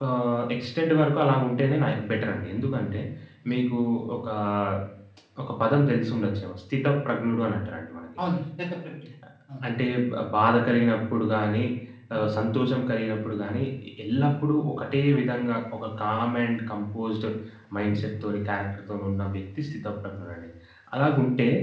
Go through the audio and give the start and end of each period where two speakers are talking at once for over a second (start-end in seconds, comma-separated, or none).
none